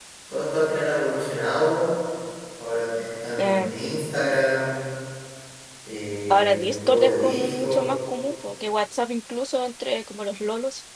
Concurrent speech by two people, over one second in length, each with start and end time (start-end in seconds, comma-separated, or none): 6.3-7.9